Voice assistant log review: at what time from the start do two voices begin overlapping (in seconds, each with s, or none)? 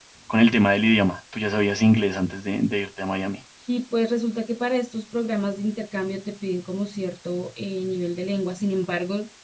none